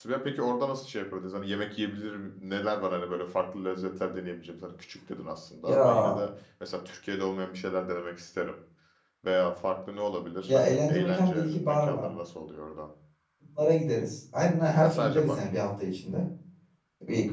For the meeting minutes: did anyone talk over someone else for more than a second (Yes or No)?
Yes